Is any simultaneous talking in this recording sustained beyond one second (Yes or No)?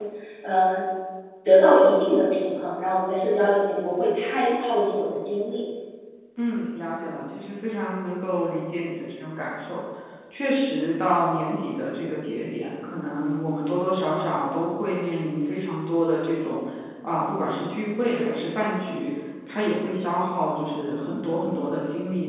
No